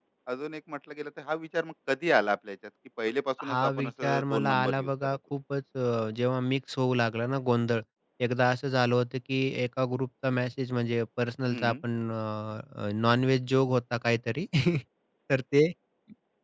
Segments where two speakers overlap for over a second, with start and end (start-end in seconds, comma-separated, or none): 3.5-5.2